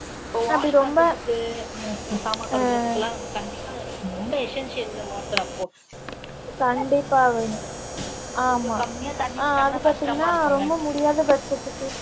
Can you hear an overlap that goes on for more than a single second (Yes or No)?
Yes